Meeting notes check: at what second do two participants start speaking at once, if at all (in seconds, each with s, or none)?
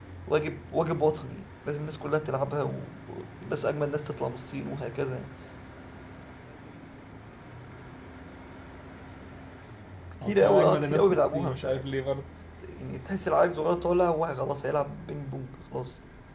10.2 s